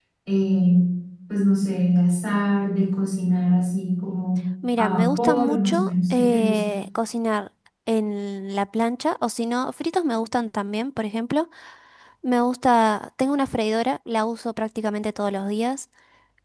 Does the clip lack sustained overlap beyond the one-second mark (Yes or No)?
No